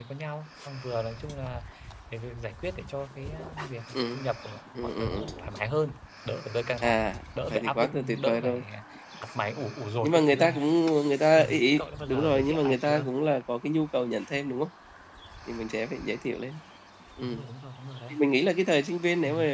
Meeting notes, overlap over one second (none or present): present